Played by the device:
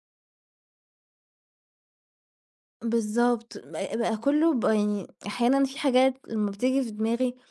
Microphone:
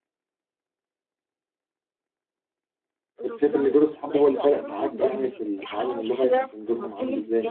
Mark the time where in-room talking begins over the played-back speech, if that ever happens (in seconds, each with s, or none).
3.2 s